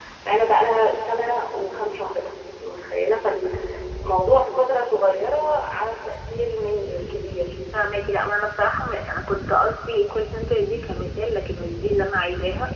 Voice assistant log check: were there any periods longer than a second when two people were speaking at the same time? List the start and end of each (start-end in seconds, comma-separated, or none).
none